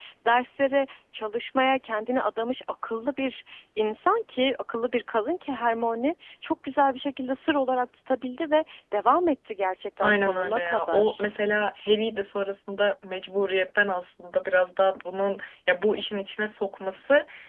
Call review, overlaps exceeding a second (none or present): present